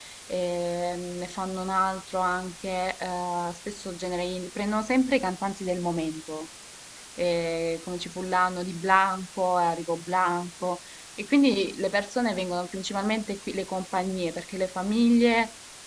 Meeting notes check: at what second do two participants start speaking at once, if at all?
none

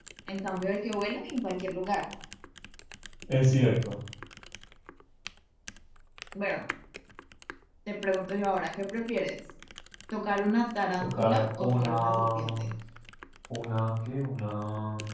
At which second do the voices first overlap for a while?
11.0 s

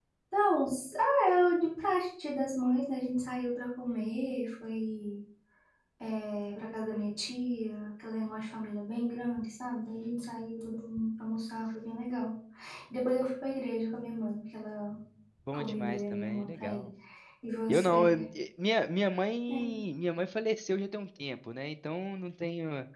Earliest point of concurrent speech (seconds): 15.5 s

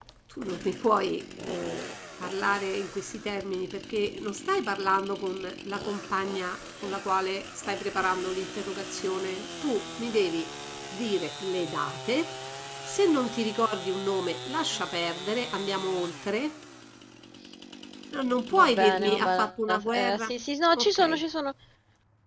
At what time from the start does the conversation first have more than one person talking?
18.6 s

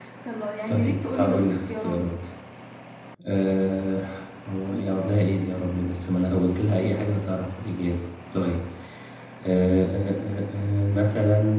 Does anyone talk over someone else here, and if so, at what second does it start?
0.7 s

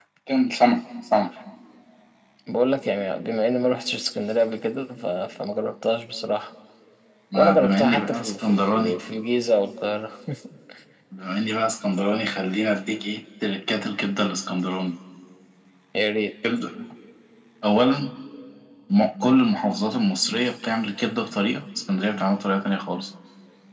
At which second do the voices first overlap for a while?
7.3 s

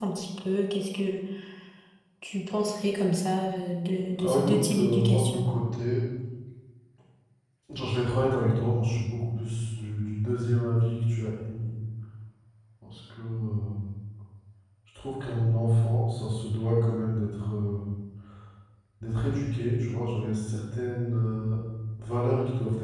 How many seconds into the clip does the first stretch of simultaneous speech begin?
4.2 s

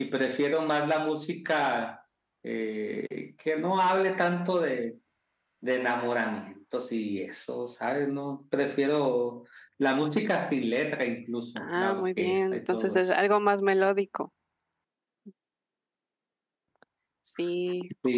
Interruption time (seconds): 11.6 s

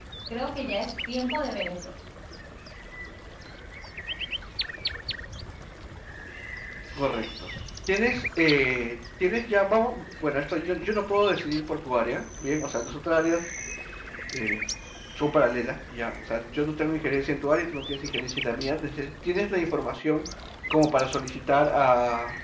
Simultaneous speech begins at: none

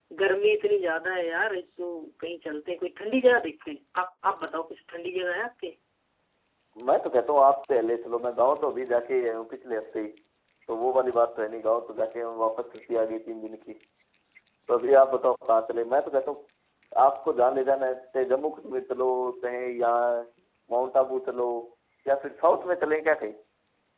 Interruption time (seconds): none

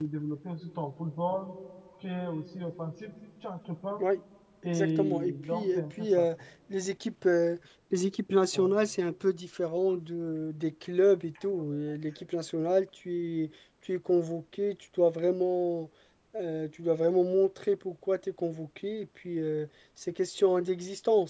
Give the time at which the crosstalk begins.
4.6 s

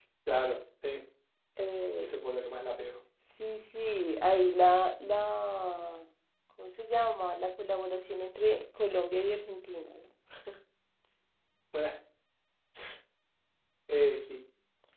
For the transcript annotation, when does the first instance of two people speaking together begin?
none

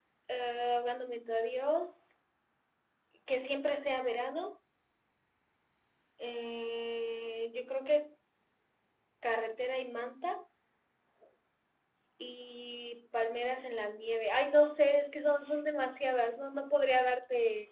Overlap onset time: none

